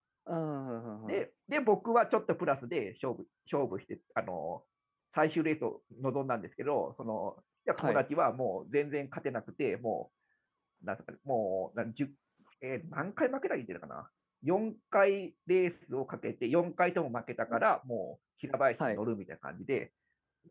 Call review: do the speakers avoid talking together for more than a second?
Yes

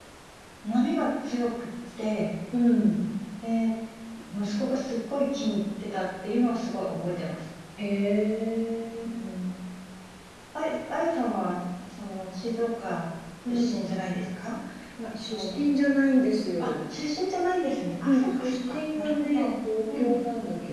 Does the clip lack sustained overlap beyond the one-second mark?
No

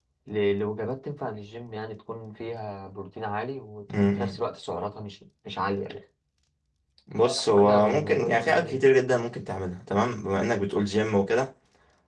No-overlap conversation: No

